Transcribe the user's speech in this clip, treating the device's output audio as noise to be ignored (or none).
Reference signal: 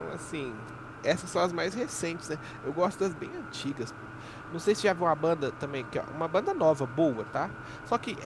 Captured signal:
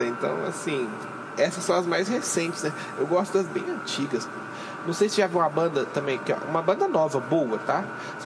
none